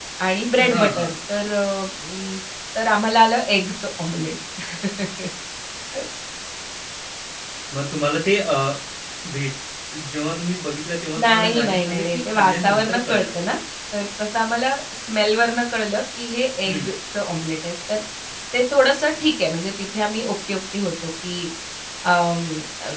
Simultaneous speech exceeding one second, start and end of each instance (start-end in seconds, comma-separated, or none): 11.2-13.2